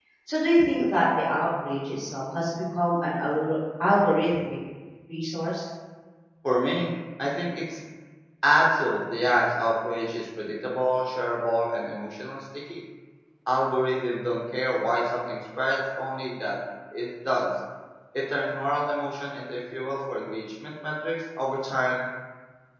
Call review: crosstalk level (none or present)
none